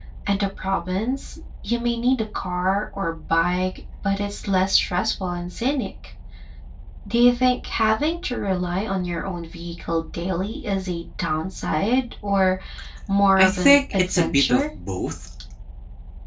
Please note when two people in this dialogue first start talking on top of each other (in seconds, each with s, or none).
13.4 s